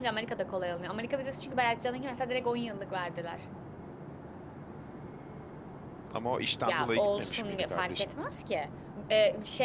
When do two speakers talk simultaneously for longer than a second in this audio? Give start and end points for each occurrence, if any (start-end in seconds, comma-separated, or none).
6.6-8.1